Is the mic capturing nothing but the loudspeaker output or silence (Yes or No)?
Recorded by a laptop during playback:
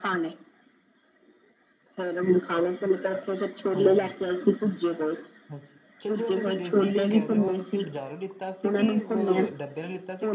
No